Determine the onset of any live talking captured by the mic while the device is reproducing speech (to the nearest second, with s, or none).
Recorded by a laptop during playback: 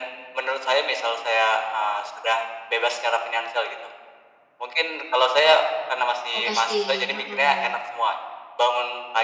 6 s